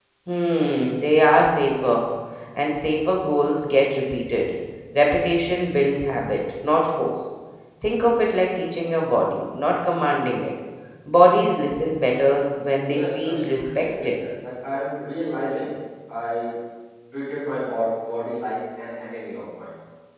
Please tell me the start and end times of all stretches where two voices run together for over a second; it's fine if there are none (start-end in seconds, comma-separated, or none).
12.9-14.2